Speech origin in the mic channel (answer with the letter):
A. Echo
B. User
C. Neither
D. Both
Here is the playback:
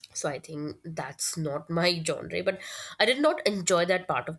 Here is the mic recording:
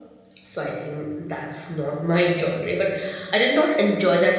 A